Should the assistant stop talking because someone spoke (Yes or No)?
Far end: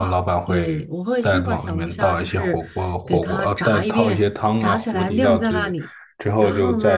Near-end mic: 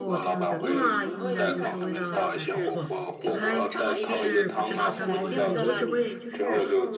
Yes